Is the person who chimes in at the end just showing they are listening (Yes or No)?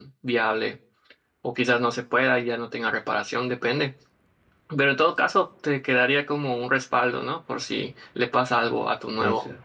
Yes